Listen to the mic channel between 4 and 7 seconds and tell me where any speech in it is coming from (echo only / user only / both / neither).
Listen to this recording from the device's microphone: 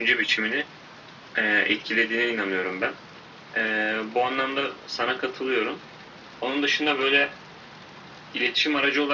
echo only